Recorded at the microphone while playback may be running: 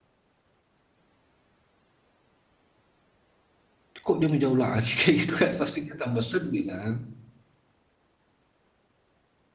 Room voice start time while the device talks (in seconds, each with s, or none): 4.0 s